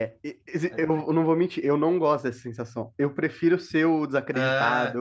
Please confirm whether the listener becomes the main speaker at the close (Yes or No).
No